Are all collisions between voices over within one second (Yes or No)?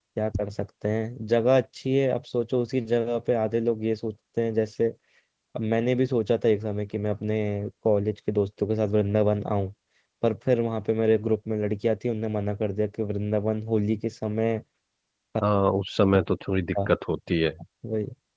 Yes